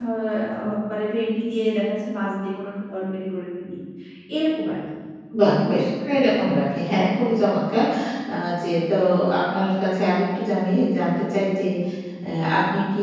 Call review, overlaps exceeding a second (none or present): none